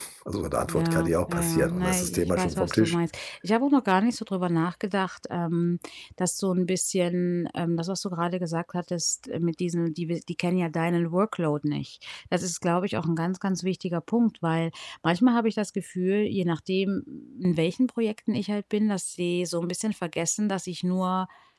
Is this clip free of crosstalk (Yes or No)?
No